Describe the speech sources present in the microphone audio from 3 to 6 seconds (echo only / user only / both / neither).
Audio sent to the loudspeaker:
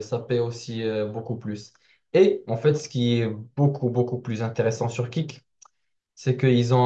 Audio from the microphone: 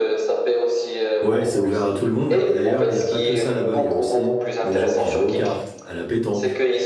both